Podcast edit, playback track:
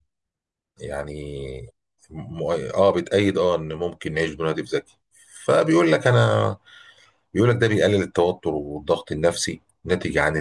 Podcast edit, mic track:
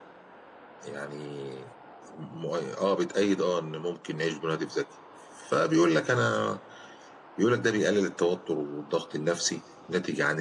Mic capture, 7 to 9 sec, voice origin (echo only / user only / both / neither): echo only